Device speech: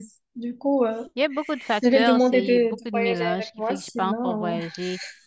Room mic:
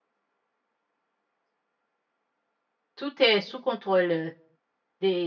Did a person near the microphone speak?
Yes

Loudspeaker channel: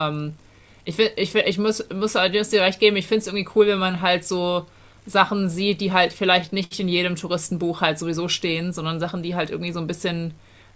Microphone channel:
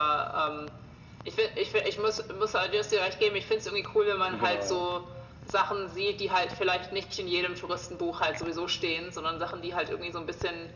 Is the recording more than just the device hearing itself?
Yes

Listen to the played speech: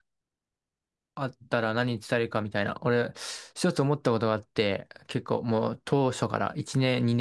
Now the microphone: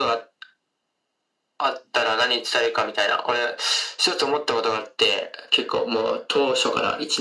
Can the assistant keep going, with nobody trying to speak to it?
Yes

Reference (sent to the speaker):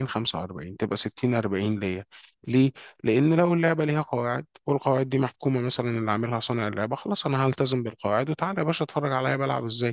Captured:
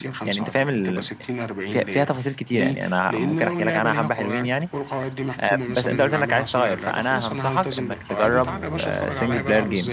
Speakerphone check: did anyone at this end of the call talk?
Yes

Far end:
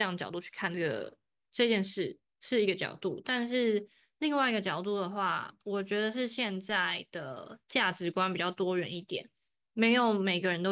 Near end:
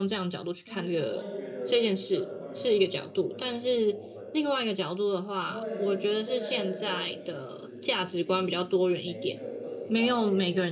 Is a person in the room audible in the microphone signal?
Yes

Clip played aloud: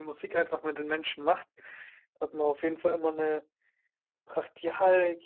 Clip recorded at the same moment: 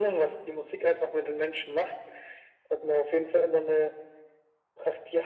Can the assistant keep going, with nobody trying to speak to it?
Yes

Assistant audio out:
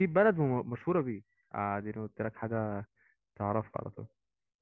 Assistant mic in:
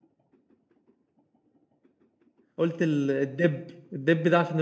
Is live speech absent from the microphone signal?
No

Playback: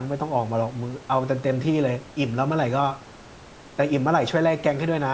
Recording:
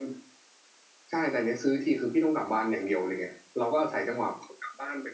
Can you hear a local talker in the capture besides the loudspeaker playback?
Yes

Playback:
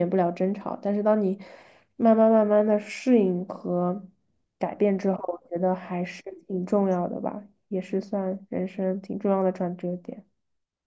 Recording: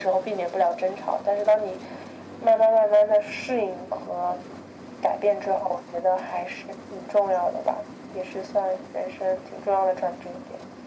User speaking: No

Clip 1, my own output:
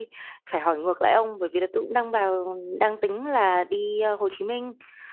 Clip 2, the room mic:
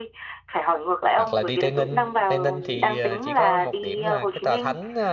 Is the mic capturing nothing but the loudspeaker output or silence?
No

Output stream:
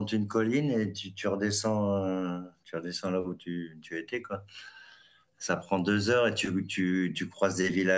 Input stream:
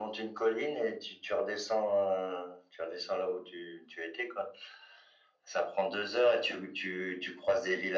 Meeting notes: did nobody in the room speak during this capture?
Yes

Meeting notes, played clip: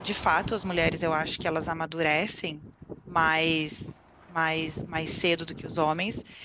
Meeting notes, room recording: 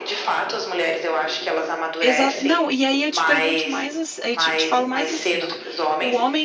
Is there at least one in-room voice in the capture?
Yes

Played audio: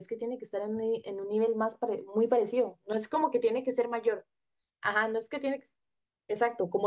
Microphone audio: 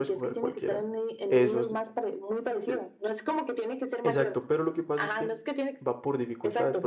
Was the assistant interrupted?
Yes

